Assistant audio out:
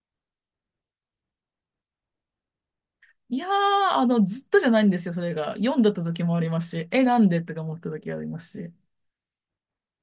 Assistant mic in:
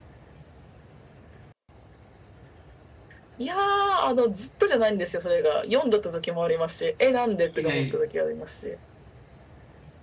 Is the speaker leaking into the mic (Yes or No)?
Yes